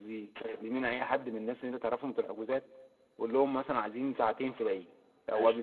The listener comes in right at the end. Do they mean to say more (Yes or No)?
No